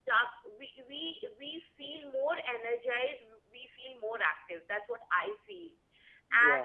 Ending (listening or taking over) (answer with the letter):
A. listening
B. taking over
A